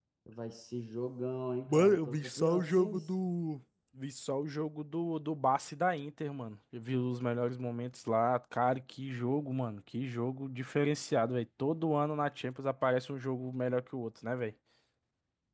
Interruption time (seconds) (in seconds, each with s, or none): 1.7 s